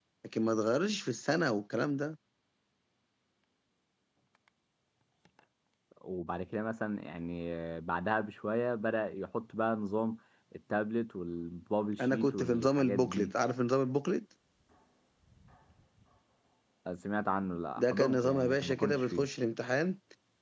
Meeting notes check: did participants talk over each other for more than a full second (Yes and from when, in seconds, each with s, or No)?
Yes, from 12.0 s